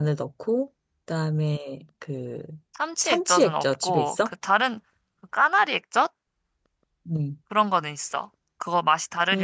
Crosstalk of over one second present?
Yes, from 3.0 s

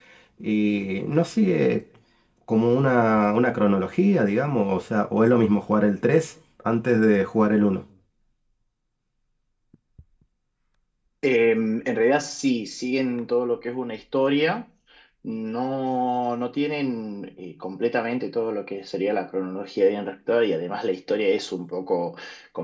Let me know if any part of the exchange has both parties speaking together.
No

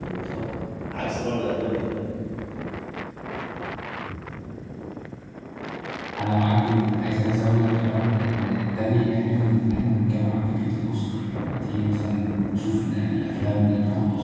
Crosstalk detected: No

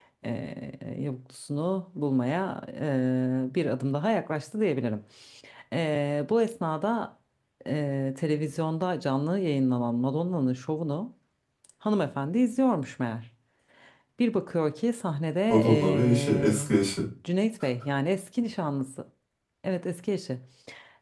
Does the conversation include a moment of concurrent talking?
Yes, from 15.5 s

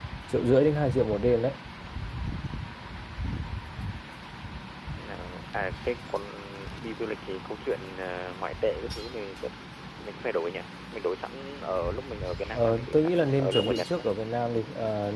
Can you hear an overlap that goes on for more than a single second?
Yes, from 12.5 s

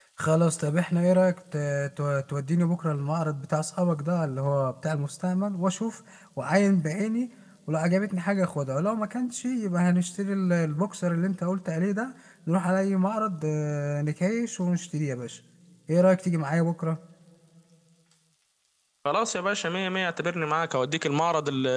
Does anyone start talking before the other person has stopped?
No

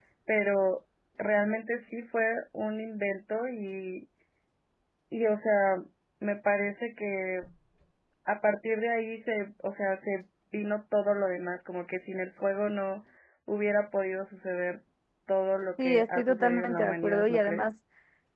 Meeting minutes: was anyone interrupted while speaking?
Yes, from 15.8 s

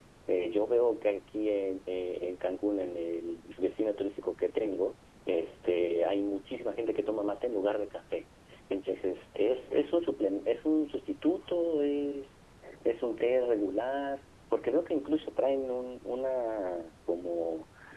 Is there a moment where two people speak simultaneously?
No

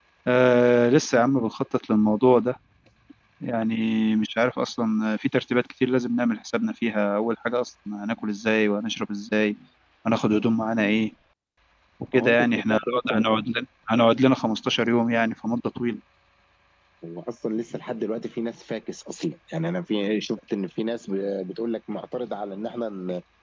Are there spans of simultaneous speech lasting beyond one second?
Yes, from 12.1 s

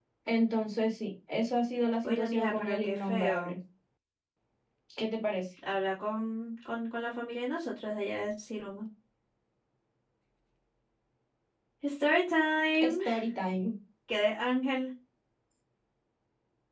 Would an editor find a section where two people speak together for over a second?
Yes, from 2.0 s

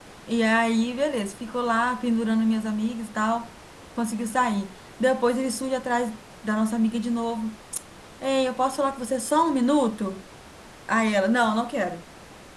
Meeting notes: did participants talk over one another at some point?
No

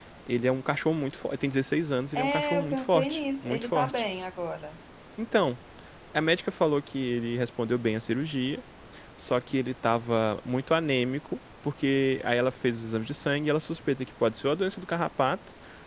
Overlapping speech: Yes, from 2.1 s

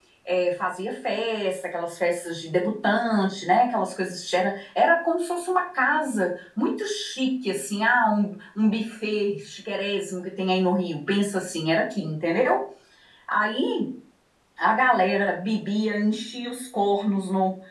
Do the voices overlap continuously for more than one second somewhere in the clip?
No

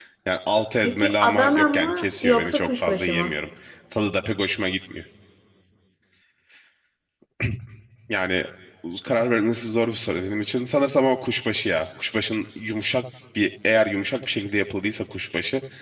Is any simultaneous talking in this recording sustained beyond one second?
Yes, from 0.8 s

